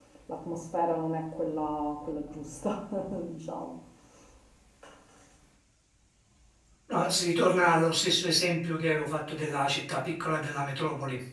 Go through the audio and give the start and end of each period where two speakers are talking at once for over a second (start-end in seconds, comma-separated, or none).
none